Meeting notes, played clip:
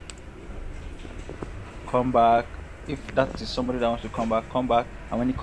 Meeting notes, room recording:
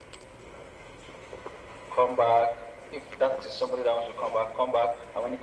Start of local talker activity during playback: none

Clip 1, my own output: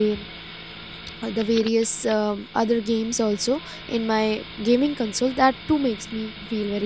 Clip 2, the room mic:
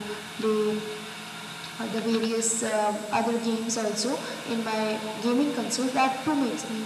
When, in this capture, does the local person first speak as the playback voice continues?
none

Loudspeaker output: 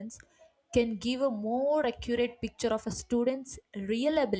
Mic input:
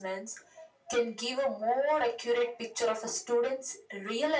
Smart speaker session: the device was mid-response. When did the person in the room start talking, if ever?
none

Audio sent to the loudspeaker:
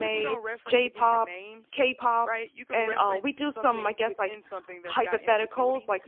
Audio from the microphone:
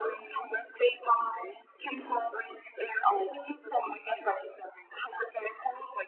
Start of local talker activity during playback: none

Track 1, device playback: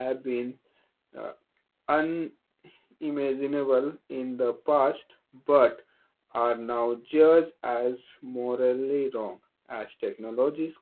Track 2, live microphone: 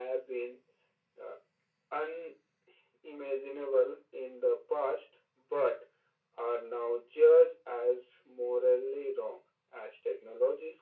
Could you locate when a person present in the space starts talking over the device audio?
none

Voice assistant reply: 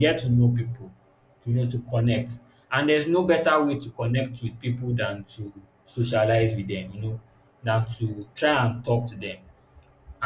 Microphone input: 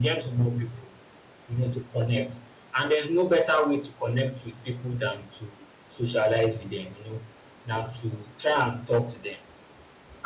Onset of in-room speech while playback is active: none

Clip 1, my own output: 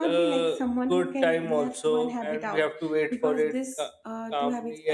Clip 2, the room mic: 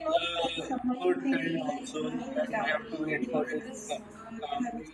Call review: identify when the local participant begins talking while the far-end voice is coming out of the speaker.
0.9 s

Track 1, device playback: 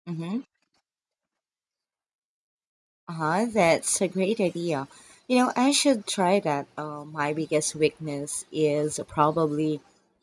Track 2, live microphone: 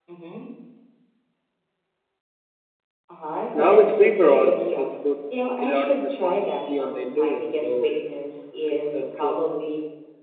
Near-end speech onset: 3.5 s

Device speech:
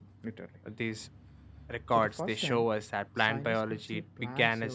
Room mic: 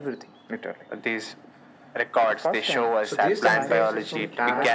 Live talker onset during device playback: 3.0 s

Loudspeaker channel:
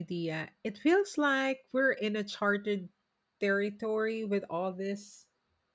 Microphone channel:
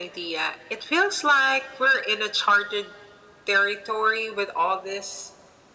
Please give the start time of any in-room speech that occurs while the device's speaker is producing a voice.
none

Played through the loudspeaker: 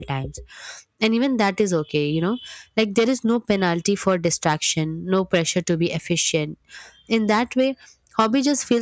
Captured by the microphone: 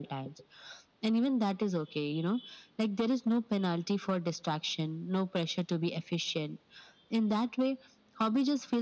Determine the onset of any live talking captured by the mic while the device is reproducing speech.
none

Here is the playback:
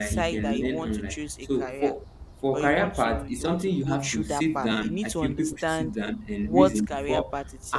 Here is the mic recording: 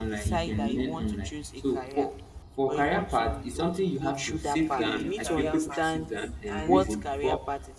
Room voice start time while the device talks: 4.6 s

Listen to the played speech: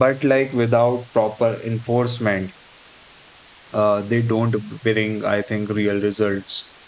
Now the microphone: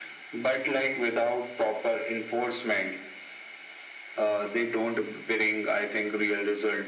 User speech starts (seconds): none

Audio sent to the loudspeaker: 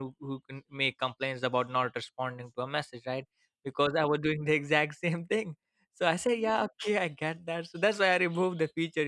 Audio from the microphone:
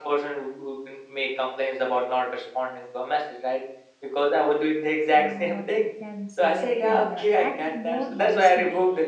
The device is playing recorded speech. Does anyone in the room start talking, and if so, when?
5.1 s

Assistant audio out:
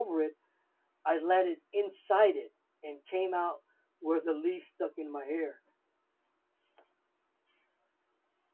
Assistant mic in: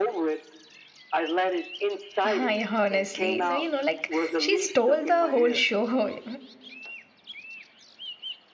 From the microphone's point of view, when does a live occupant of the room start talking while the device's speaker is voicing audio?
2.2 s

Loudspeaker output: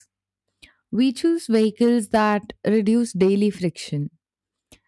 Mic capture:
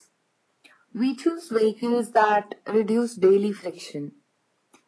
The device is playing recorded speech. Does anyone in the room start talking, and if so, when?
none

